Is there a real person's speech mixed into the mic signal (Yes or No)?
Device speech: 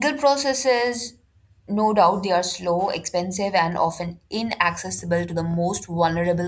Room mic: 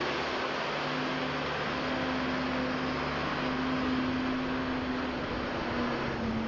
No